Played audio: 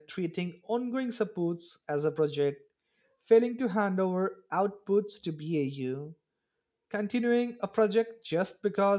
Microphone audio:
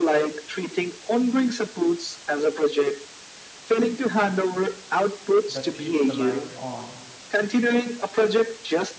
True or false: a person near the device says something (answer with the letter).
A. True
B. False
A